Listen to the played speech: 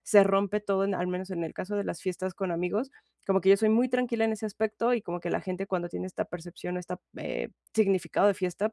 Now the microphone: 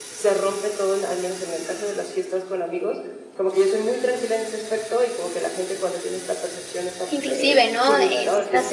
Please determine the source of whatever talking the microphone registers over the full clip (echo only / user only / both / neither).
both